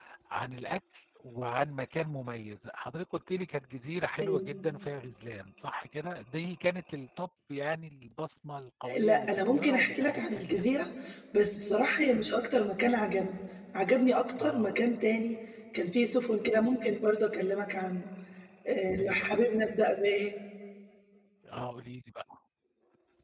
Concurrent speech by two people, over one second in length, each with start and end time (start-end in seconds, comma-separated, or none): 9.0-10.6